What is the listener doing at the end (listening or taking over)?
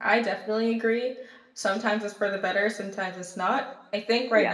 listening